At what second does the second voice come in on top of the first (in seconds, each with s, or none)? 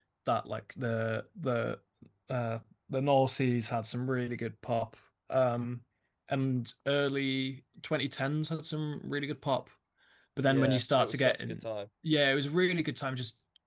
10.4 s